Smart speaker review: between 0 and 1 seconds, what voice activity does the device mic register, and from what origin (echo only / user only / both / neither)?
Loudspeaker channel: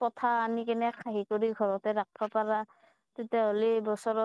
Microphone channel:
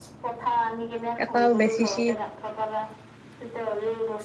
echo only